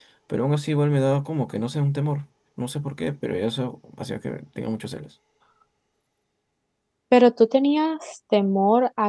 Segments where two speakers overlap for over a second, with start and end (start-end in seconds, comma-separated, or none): none